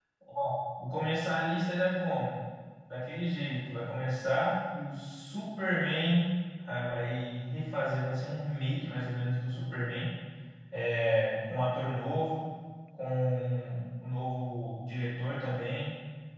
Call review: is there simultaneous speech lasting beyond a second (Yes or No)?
No